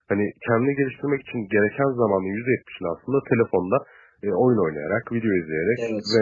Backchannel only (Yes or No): Yes